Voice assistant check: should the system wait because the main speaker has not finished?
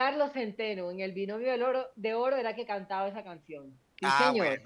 No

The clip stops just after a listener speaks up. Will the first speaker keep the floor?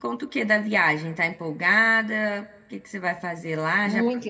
No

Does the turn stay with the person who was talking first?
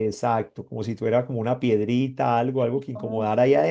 Yes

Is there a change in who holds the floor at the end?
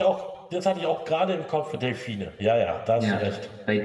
Yes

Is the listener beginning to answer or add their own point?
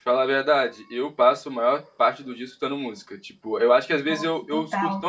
No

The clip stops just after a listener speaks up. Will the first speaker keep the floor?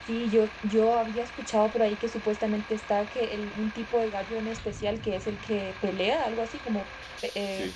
No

